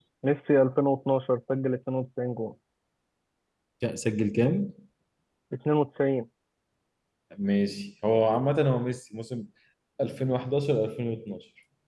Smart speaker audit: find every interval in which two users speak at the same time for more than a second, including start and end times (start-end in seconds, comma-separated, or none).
none